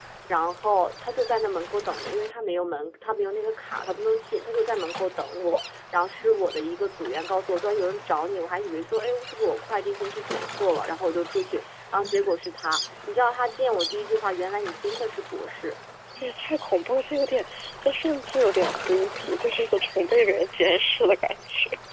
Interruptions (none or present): none